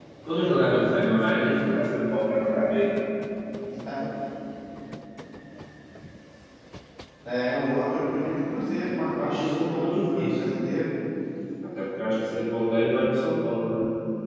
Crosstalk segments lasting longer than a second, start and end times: 9.0-10.4

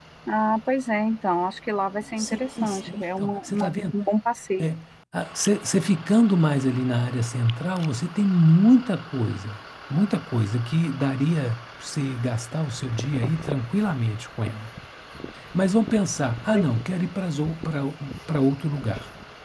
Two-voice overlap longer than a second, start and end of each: 2.2-3.8

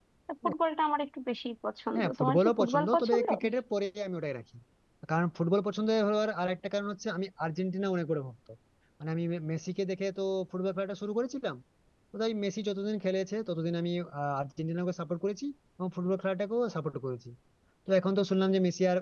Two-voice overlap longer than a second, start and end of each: 2.0-3.3

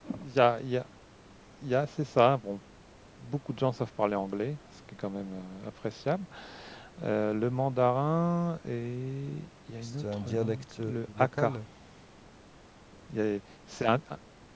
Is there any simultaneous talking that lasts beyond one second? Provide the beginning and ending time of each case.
9.8-11.6

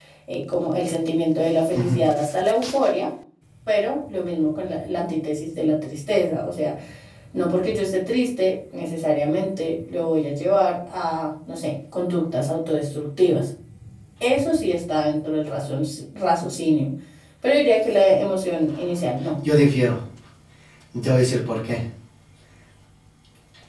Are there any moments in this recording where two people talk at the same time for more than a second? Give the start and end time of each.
none

